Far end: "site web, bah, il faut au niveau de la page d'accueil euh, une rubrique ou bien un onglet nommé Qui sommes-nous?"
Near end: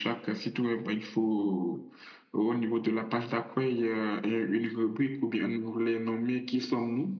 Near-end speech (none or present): none